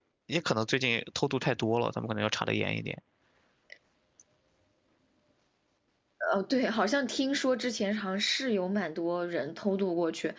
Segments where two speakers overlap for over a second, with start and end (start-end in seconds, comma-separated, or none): none